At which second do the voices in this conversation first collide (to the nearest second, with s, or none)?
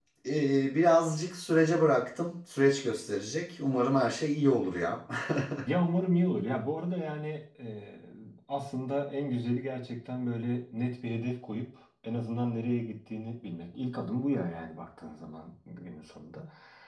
none